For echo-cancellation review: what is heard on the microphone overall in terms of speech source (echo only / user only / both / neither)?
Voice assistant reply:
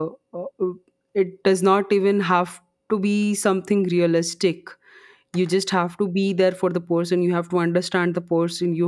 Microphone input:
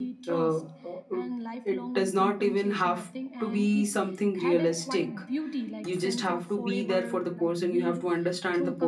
both